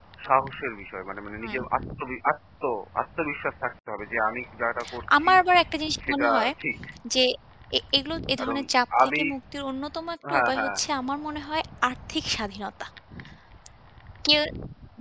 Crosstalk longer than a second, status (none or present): none